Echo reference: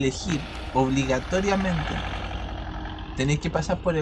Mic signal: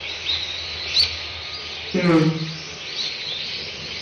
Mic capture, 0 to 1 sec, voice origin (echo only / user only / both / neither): neither